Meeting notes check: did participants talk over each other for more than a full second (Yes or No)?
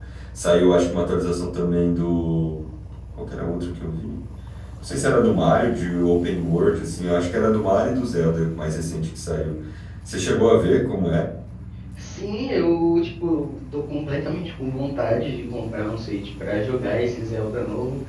No